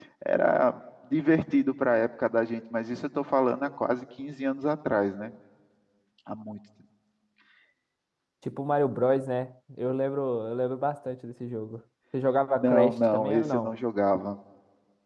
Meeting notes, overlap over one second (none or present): present